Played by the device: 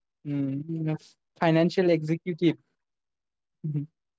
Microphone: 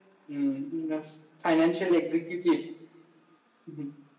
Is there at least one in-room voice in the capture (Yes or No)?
No